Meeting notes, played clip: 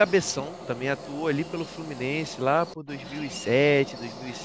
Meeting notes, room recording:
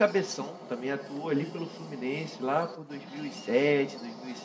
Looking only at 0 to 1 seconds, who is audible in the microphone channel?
echo only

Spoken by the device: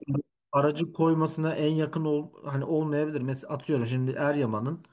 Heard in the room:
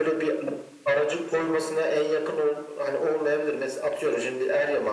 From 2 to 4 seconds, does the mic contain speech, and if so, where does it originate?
echo only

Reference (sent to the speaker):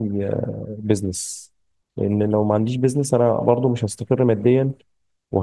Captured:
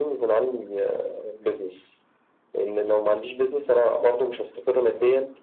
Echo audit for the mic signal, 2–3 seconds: echo only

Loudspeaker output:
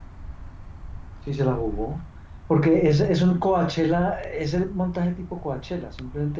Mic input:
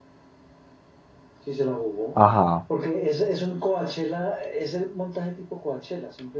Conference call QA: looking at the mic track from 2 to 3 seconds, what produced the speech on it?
both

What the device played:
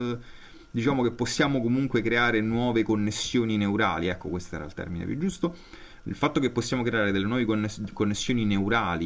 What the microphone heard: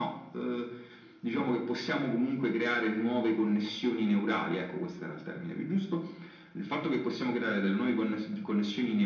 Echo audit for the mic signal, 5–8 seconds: echo only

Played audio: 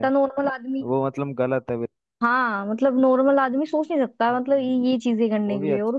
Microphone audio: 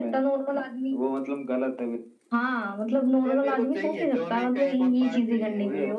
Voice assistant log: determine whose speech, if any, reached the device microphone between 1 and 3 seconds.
echo only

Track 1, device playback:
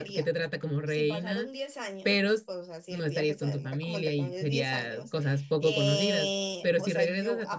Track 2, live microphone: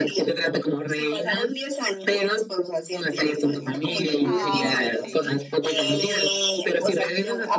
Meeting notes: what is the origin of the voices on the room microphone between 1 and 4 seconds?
echo only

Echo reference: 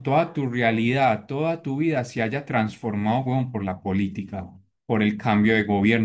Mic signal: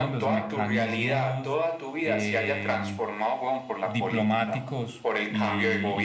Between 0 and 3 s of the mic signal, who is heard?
both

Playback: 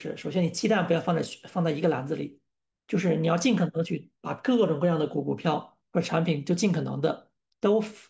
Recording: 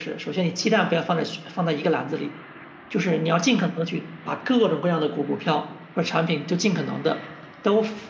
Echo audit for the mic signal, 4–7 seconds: echo only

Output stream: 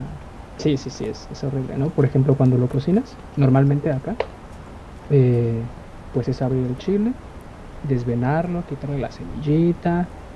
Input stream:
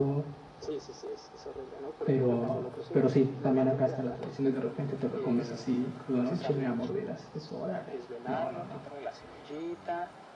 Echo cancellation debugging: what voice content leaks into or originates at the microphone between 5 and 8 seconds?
both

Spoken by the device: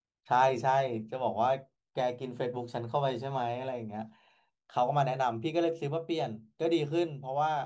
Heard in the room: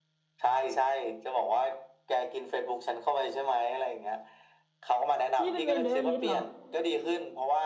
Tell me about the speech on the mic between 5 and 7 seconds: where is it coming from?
both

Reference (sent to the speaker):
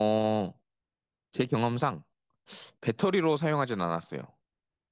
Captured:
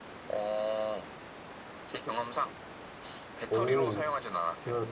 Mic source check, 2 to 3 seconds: echo only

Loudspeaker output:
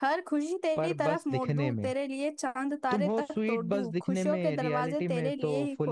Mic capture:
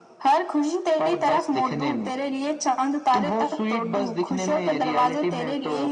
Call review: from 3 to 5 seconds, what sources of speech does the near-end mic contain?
echo only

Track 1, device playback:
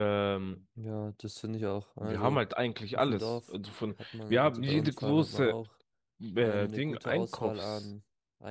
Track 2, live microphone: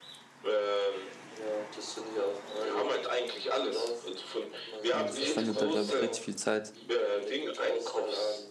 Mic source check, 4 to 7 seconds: both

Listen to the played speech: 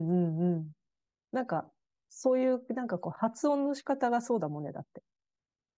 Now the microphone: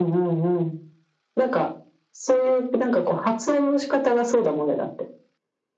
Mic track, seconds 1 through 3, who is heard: echo only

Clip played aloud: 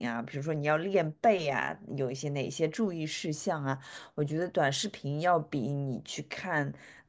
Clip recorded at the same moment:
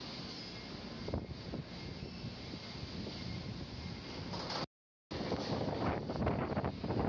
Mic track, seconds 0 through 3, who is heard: neither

